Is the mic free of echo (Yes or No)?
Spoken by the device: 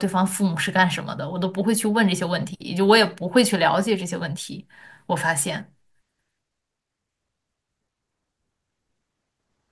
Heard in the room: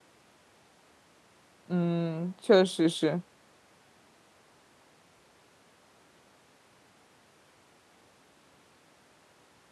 Yes